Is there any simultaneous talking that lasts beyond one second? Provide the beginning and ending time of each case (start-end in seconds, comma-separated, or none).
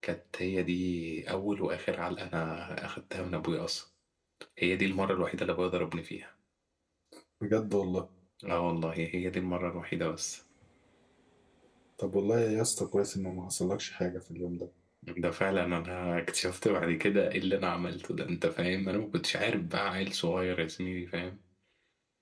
none